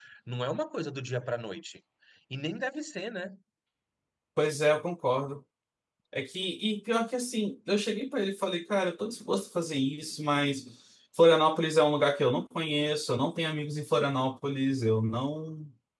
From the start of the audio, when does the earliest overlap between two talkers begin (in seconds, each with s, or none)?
none